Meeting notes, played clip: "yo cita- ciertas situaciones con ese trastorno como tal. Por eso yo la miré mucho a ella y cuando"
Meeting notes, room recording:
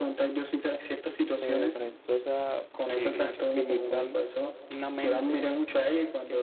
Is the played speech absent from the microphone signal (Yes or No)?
No